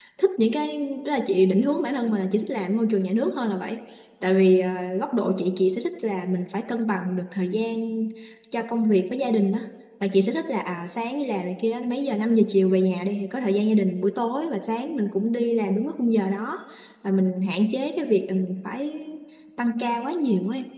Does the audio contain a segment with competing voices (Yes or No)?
No